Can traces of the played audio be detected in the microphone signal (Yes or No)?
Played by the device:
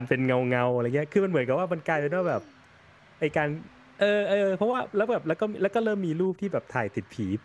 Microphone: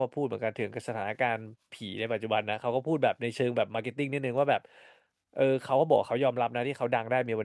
No